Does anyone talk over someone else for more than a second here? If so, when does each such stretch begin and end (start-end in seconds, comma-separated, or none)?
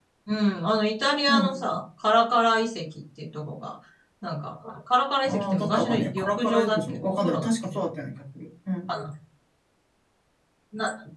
5.2-7.5